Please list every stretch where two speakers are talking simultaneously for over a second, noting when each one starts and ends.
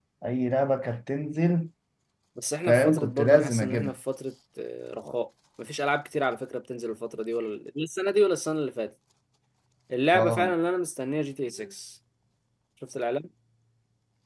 2.6-3.9

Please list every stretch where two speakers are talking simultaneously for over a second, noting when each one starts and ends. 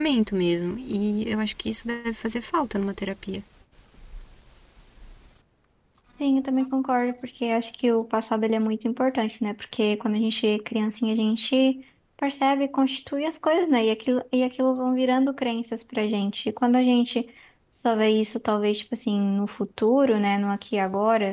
none

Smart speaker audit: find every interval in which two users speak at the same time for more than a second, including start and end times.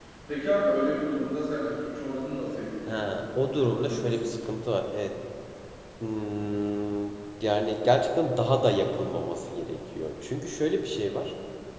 2.9-4.4

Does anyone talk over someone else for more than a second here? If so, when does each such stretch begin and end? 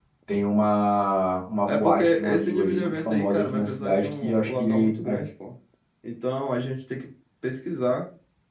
1.6-5.2

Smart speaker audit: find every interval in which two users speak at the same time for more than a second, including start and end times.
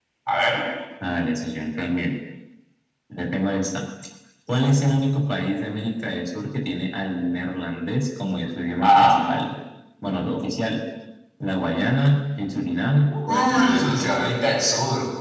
13.1-14.3

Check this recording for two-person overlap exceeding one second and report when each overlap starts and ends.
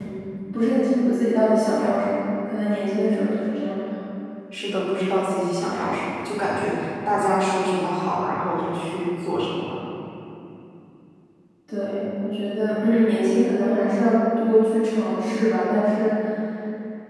none

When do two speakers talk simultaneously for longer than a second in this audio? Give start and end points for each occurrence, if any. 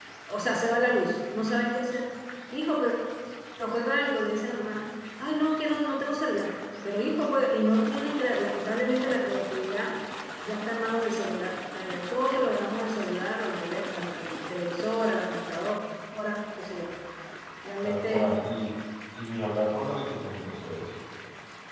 none

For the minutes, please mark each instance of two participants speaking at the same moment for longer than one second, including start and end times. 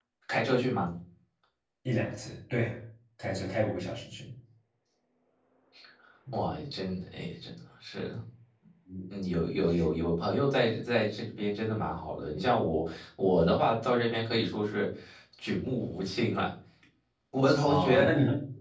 none

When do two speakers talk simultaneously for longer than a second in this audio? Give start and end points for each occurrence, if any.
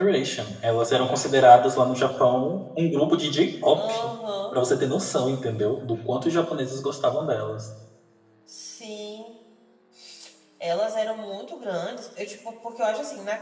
none

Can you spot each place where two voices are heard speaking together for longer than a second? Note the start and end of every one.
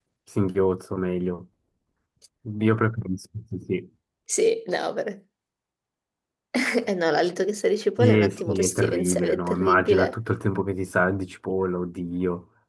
8.0-10.2

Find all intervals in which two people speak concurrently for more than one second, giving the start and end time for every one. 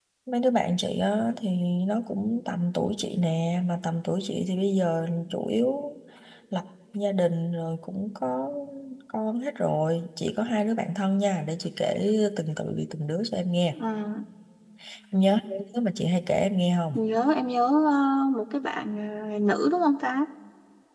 none

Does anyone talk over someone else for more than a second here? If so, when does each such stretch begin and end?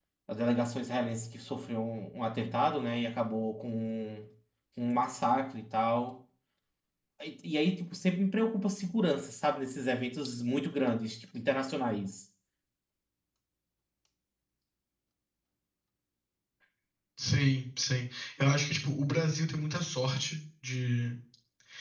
none

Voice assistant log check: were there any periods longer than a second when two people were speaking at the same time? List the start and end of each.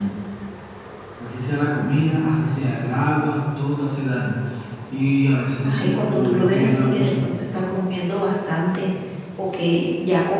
5.6-7.1

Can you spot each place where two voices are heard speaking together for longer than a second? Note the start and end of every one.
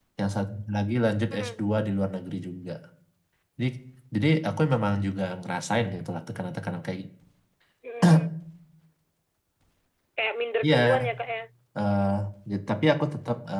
none

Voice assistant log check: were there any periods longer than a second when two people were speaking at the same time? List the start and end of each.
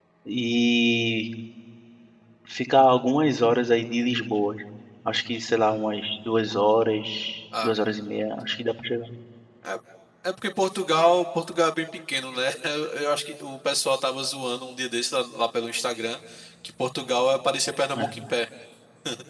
none

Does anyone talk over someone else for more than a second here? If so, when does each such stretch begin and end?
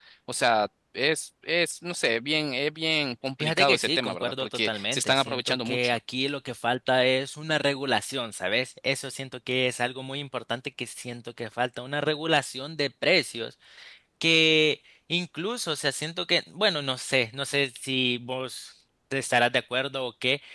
3.4-6.0

